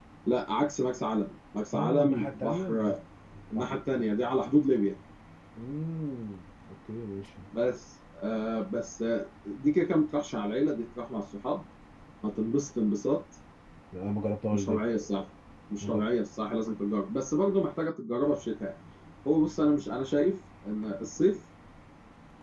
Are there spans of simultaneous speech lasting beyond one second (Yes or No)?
Yes